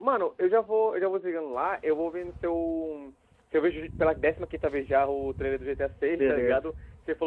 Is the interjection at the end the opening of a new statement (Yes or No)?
No